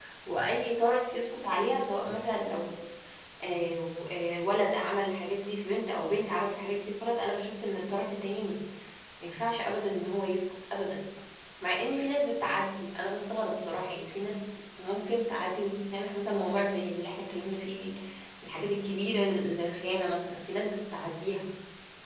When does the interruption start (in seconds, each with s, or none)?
none